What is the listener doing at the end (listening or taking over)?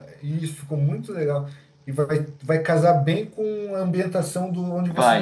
listening